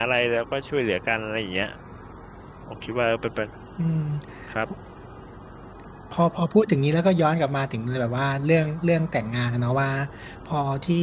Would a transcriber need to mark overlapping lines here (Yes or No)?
No